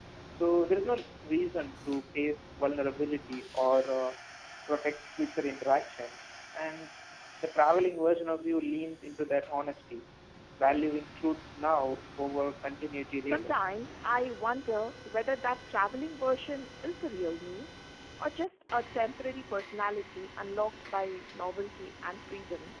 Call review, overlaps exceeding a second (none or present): none